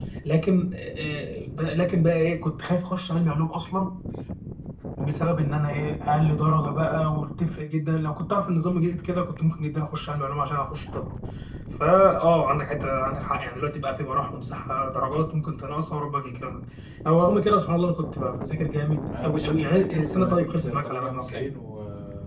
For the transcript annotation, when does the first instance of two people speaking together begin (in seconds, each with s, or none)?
19.1 s